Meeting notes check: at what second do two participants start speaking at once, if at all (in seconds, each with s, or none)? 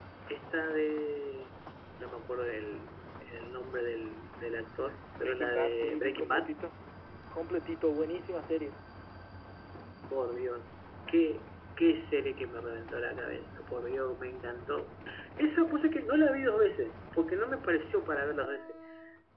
5.2 s